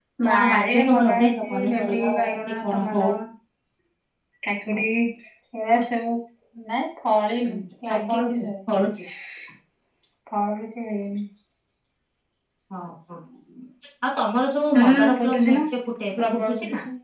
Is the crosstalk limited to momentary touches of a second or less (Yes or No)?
No